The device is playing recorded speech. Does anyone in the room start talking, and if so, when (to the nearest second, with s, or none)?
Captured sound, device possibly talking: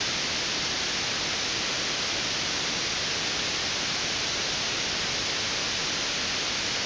none